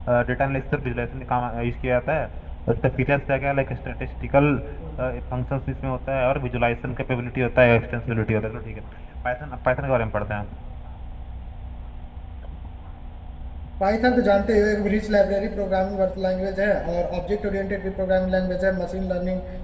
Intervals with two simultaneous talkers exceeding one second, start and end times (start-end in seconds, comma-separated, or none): none